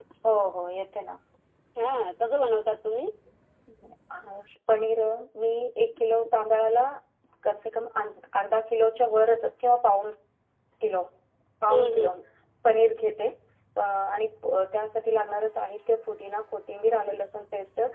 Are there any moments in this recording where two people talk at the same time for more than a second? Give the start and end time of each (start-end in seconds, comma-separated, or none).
none